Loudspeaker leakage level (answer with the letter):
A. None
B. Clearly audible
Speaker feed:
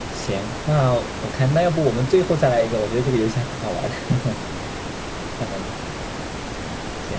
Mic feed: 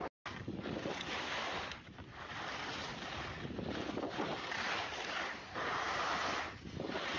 A